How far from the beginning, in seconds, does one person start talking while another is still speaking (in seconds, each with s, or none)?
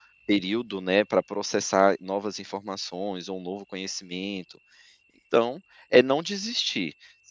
none